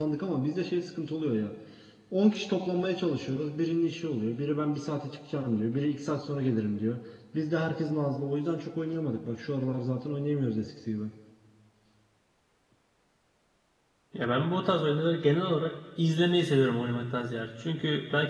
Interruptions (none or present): none